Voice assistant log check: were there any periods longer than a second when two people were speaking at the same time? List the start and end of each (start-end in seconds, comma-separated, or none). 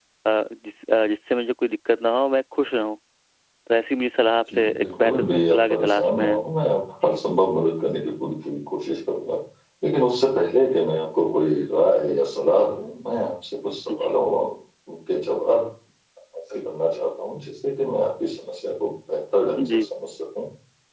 4.5-6.5